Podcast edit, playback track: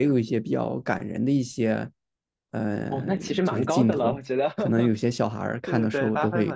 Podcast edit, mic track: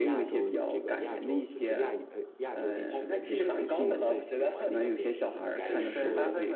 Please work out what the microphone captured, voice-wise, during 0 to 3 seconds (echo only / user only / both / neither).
both